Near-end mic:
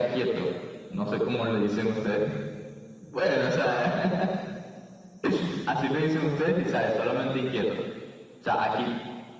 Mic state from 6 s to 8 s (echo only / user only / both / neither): echo only